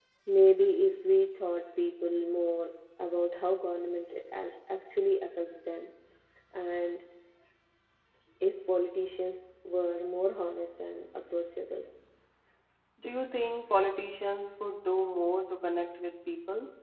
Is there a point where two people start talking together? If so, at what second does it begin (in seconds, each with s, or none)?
none